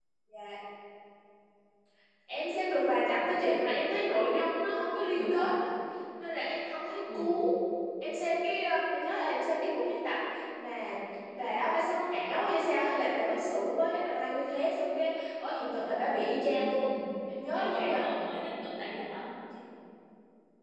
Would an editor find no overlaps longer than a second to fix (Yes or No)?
Yes